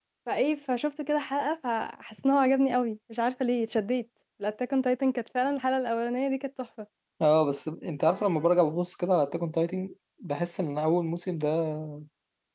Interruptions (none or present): none